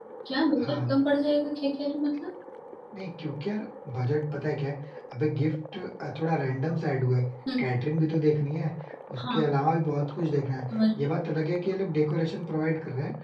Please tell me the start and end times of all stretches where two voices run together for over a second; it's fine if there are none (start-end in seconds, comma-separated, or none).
none